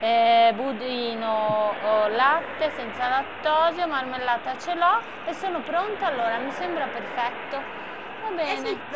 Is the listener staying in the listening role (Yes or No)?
No